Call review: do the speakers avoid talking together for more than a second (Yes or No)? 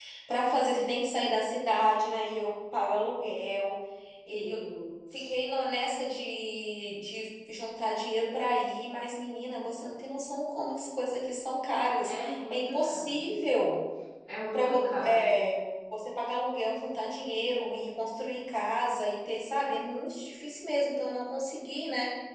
No